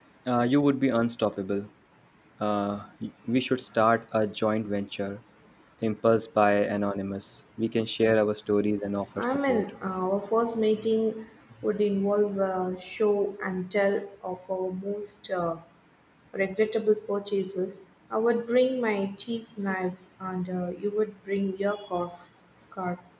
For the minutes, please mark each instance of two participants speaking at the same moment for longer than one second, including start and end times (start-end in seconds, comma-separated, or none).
none